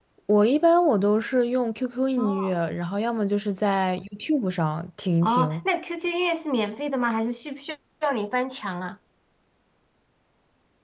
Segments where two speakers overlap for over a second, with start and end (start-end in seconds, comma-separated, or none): none